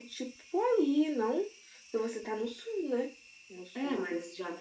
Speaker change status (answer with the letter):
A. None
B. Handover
B